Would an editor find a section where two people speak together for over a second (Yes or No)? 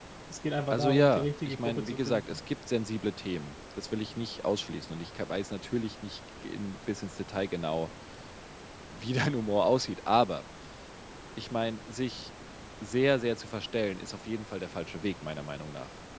Yes